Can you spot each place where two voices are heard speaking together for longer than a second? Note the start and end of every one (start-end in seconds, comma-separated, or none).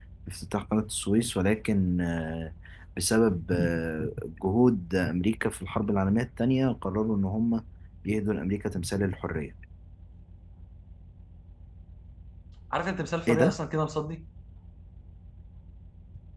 none